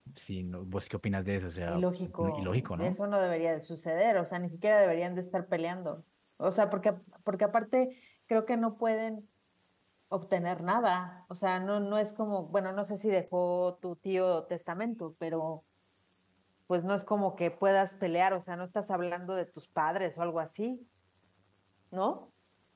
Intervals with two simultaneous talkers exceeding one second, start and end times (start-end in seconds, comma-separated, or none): 1.7-3.0